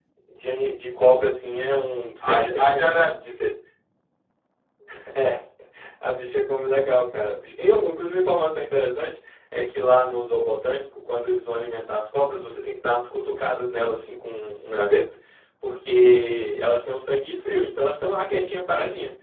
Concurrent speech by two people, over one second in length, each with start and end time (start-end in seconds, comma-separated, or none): 2.3-3.5